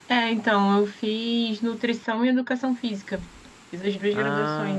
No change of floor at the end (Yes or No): Yes